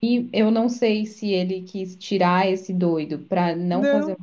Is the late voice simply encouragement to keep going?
Yes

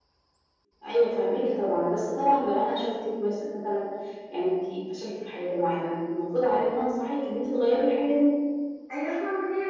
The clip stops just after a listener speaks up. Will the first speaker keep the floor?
No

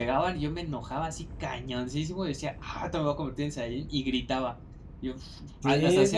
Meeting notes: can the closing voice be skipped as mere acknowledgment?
No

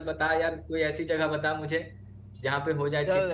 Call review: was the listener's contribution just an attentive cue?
No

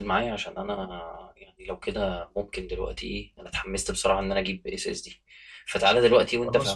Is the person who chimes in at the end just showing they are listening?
Yes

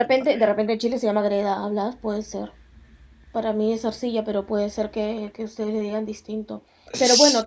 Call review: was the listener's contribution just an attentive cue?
Yes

